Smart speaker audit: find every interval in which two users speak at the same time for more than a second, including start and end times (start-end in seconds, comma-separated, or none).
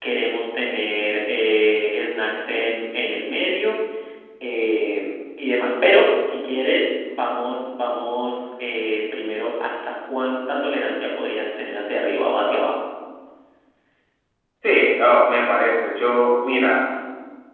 none